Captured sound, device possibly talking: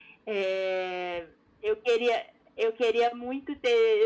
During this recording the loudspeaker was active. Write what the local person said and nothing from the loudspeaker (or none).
none